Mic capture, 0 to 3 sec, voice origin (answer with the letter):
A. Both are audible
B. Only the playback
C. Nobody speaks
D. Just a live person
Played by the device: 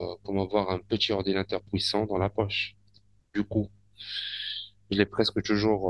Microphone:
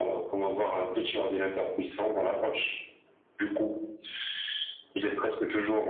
B